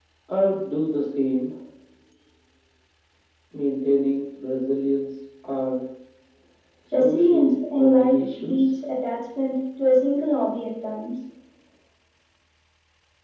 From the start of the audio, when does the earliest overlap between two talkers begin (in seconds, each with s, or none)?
6.9 s